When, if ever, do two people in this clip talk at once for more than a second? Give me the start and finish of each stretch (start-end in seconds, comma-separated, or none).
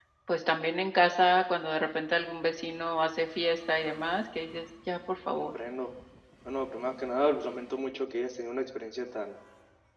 none